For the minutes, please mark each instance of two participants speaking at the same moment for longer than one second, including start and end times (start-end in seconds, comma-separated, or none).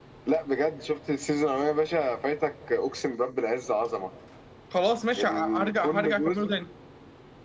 5.2-6.4